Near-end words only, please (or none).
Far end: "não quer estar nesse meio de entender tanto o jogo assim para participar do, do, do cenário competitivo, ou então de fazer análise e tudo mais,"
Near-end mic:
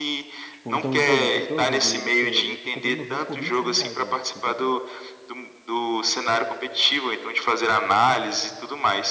Tipo, então, por exemplo, o teu jogo ali, você, eu comprei meu jogo por 26 reais na época que eu comprei.